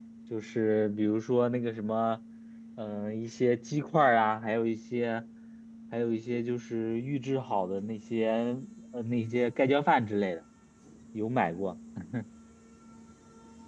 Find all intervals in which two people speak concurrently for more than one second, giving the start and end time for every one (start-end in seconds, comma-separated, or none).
none